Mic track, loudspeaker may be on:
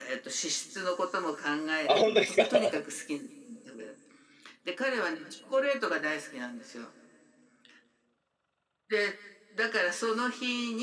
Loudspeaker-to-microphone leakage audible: Yes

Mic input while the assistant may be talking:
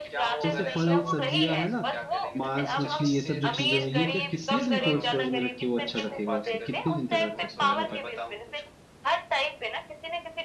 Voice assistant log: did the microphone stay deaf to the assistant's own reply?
No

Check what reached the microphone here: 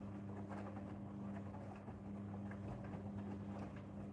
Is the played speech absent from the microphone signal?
Yes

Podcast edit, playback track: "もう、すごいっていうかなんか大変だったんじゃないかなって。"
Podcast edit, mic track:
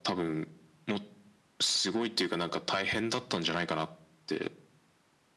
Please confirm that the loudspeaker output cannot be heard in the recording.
No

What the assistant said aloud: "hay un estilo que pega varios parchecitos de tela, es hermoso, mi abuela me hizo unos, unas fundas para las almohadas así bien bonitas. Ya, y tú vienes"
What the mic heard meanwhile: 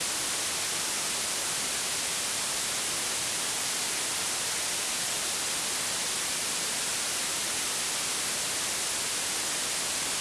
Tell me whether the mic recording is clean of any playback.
Yes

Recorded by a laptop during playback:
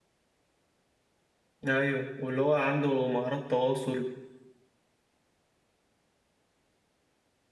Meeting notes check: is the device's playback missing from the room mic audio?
Yes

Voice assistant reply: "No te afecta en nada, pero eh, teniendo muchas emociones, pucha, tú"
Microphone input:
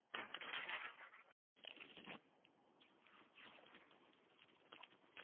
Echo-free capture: Yes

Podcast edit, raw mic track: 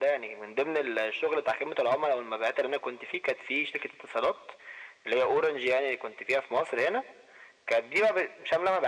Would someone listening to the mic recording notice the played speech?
Yes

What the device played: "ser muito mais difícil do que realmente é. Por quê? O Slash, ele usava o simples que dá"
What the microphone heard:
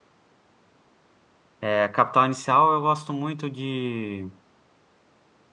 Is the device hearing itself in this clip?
No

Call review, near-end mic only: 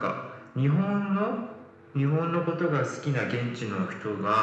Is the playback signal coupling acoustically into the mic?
Yes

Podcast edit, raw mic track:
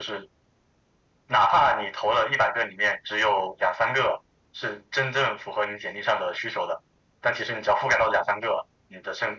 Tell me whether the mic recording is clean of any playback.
No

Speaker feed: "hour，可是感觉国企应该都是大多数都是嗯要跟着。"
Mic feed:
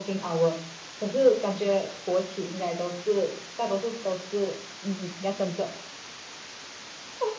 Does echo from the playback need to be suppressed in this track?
Yes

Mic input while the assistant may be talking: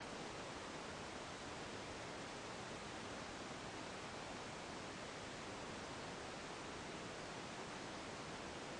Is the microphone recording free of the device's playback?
Yes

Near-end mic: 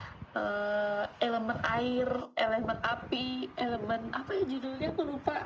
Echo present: Yes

